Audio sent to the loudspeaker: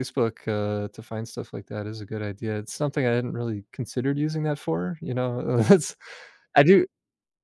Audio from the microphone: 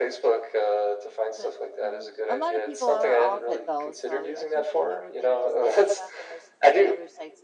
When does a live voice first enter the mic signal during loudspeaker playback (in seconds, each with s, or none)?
1.4 s